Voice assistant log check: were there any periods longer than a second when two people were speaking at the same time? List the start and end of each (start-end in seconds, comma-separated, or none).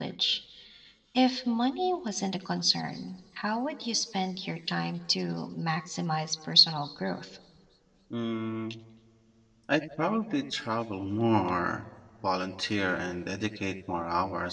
none